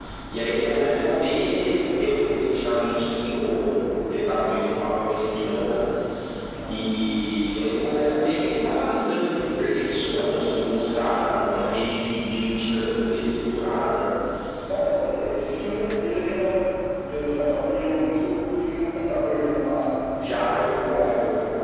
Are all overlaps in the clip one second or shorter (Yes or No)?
Yes